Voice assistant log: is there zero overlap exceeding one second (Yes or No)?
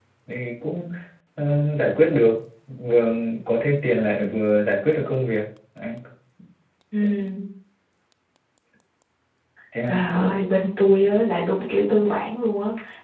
Yes